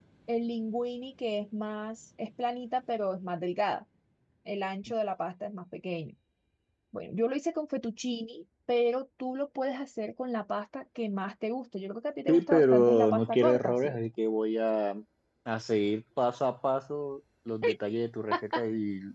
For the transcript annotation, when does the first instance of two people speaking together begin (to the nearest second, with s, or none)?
12 s